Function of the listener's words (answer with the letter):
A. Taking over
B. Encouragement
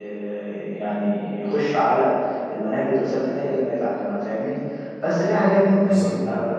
B